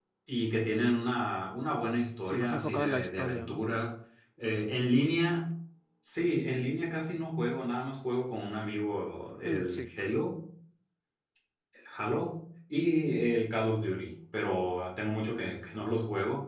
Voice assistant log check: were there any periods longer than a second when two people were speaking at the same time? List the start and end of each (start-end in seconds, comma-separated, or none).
2.2-3.6